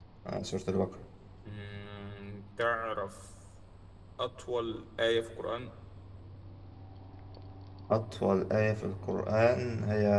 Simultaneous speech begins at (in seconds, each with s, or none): none